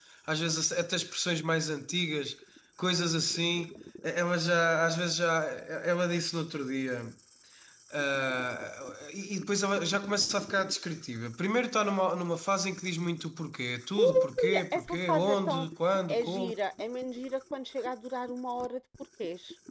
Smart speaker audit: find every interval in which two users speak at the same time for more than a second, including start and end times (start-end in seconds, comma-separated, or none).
14.0-15.7